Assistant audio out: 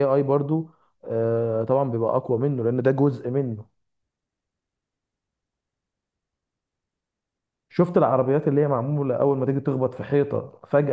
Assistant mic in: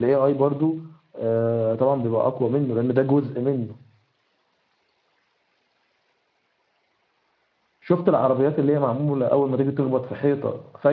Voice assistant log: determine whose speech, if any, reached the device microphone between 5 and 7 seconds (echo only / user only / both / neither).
neither